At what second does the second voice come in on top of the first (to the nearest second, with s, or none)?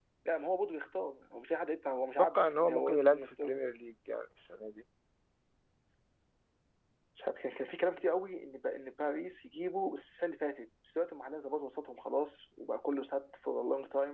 2 s